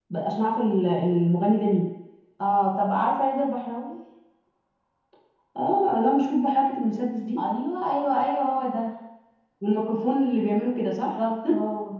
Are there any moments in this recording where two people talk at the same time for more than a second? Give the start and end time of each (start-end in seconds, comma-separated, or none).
none